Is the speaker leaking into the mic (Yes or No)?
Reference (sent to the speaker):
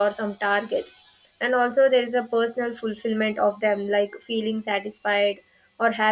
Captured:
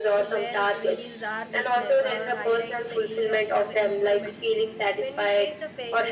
Yes